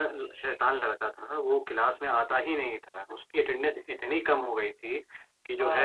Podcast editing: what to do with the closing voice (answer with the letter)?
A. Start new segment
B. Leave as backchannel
B